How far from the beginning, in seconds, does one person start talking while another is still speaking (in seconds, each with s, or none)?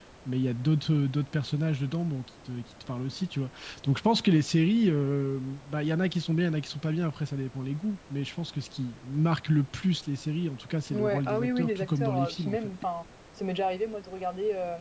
10.9 s